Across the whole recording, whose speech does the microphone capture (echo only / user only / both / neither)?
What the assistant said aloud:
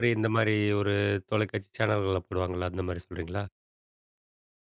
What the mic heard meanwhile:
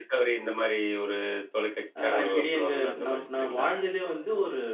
both